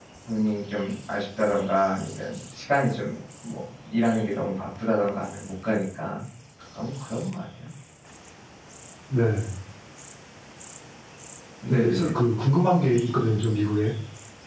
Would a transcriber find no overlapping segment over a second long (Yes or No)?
Yes